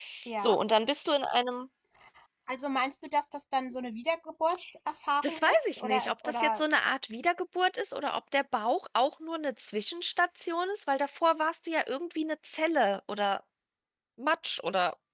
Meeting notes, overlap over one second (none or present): present